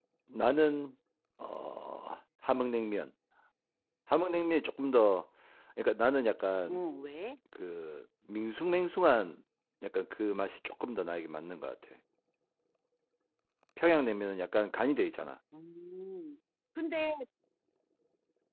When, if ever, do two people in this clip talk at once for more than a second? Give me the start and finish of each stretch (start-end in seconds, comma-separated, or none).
none